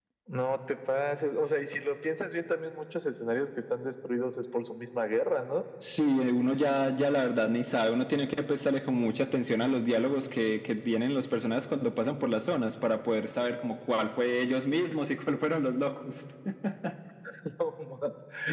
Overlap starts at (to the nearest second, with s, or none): none